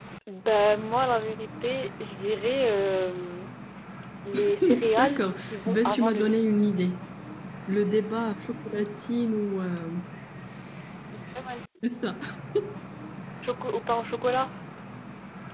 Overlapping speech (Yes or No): Yes